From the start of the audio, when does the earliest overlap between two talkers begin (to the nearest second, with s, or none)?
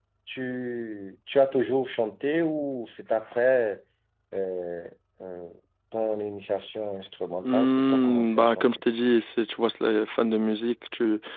7 s